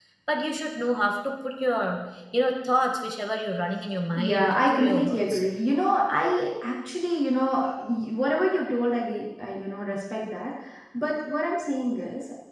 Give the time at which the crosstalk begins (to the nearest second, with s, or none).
4 s